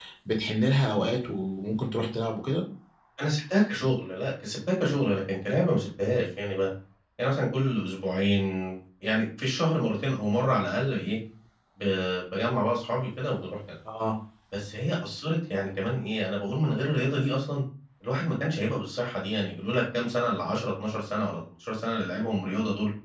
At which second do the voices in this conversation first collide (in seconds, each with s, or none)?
none